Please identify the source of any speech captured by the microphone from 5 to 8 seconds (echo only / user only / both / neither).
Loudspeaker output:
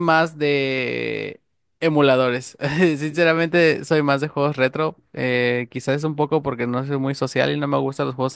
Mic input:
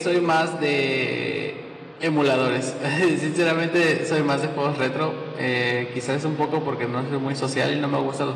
echo only